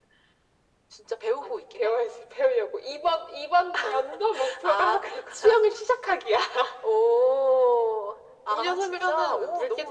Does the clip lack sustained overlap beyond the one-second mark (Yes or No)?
No